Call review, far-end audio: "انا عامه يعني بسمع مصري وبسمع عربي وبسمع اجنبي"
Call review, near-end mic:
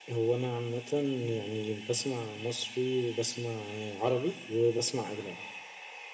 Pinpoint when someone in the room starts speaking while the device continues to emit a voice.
none

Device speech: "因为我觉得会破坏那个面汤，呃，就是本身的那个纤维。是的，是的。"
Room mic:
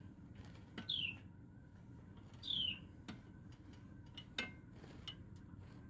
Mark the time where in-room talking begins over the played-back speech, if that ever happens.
none

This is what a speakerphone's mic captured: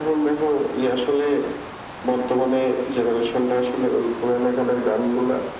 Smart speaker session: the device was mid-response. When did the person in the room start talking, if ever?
none

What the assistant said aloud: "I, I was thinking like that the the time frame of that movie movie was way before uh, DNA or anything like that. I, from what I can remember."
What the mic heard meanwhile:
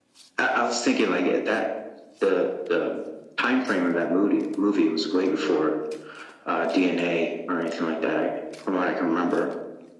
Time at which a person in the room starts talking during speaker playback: none

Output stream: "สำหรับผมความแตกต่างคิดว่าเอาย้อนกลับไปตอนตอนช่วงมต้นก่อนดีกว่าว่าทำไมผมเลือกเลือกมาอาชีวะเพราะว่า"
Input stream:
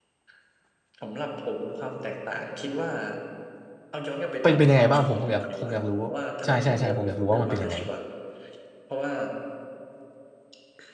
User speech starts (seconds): 4 s

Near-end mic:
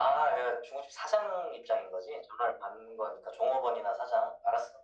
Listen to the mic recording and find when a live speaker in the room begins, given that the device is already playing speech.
none

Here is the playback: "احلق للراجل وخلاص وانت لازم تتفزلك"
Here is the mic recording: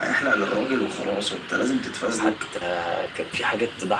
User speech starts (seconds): 2 s

